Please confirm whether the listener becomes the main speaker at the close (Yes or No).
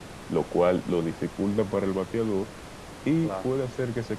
No